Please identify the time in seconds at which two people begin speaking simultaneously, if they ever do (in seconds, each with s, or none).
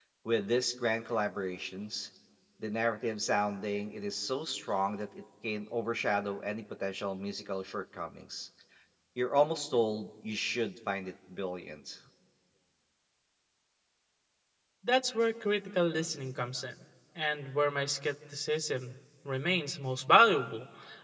none